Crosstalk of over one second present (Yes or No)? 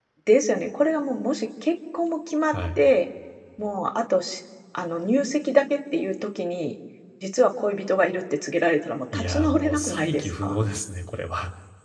Yes